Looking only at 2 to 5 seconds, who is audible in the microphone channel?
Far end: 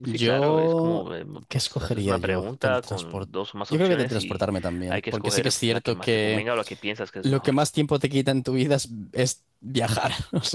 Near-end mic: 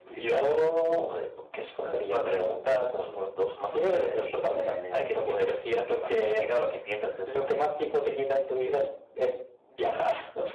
echo only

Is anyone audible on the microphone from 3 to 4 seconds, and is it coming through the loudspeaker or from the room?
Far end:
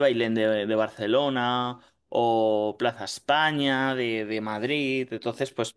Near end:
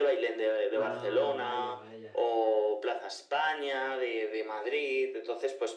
echo only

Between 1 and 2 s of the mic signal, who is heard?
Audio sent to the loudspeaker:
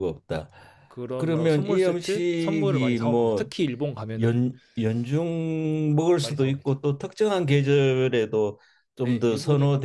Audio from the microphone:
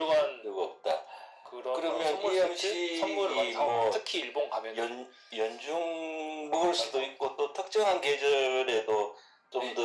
echo only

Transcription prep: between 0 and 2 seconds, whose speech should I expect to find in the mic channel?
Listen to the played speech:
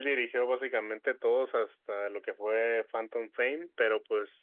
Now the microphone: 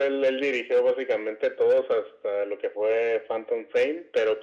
echo only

